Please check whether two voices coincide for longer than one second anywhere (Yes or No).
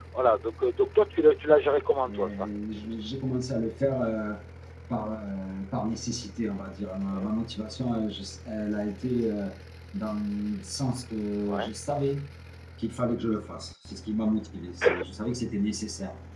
No